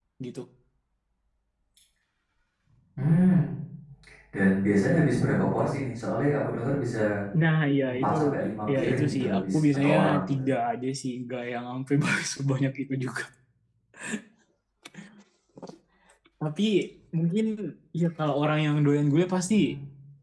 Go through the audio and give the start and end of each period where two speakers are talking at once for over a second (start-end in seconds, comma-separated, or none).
8.8-10.4